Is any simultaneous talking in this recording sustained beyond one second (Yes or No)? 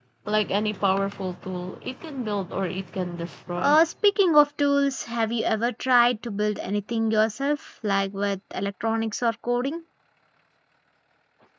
No